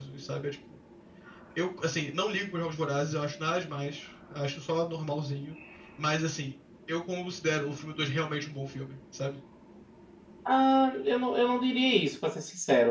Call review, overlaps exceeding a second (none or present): none